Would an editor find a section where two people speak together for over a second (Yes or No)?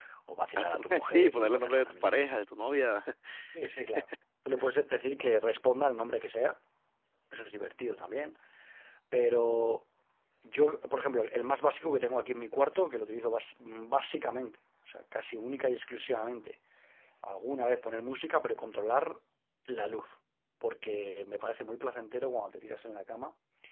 Yes